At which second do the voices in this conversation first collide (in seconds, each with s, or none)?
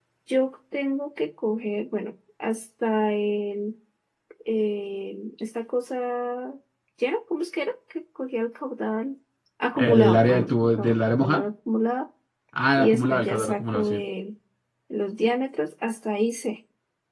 9.8 s